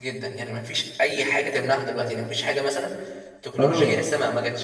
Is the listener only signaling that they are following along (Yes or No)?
Yes